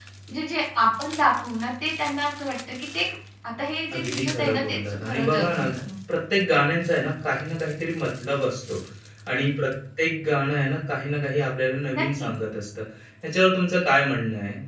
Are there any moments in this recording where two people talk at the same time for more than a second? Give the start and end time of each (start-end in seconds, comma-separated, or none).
3.9-5.6